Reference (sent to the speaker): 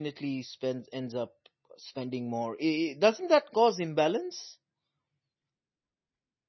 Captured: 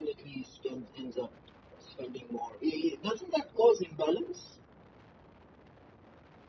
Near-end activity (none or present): none